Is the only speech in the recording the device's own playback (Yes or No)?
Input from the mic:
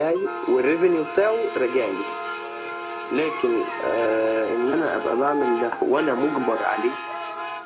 Yes